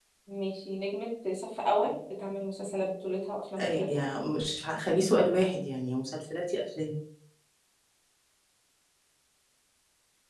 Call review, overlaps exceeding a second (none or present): none